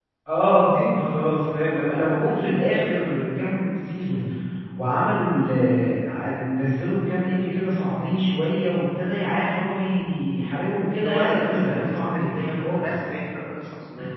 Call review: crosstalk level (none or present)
present